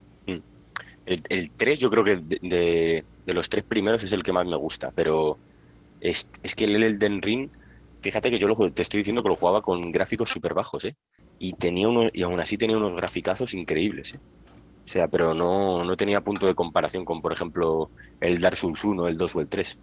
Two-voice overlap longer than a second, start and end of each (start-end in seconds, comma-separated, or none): none